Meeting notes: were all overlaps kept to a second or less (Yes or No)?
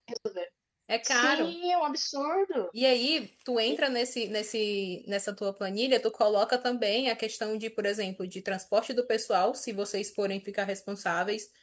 Yes